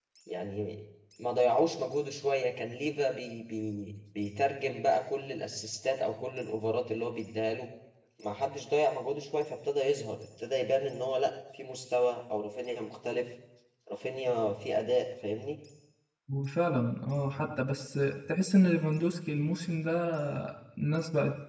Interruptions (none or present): none